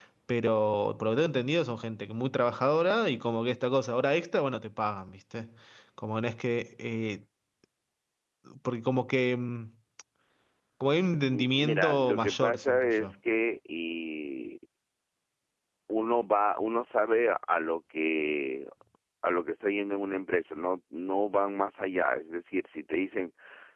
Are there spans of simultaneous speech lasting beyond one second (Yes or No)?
Yes